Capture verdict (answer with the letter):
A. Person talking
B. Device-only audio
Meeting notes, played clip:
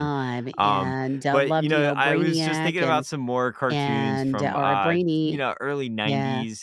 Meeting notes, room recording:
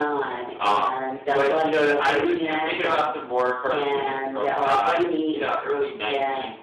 B